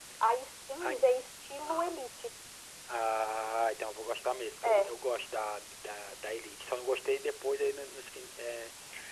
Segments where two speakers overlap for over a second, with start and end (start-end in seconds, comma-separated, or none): none